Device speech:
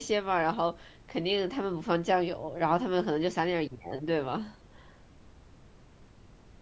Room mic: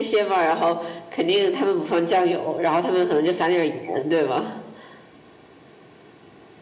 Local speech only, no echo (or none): none